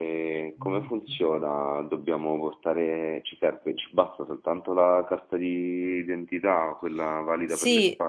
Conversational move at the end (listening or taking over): taking over